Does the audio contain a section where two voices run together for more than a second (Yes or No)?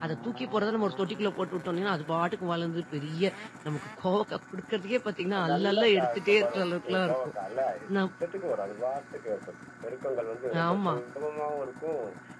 Yes